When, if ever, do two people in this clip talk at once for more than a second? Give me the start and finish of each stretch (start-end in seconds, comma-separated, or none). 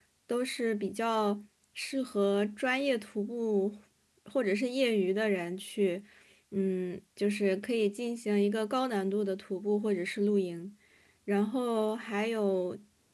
none